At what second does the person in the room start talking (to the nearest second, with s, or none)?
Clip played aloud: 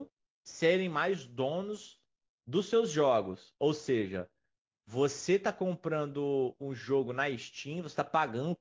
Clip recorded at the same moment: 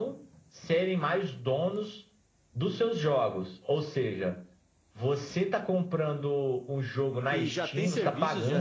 7 s